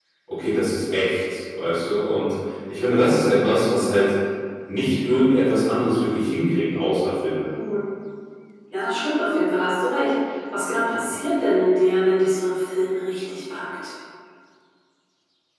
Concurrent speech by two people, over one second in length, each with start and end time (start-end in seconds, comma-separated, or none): none